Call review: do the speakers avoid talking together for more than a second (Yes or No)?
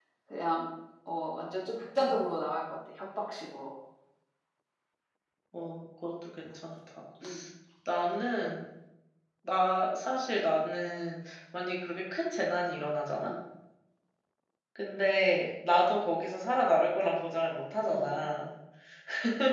Yes